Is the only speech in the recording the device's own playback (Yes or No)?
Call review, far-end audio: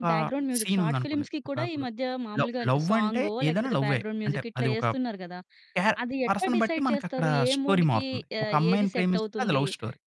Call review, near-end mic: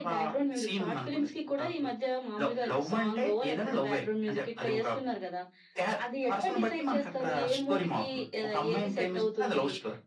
Yes